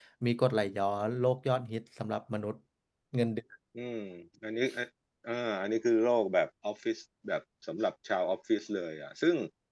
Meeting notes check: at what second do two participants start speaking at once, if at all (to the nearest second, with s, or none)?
none